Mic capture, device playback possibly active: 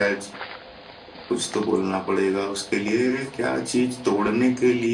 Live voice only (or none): none